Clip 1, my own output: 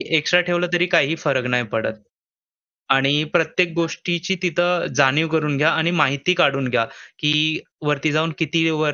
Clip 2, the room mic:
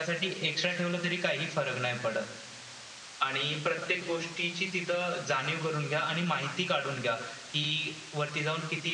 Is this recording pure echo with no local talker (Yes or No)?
Yes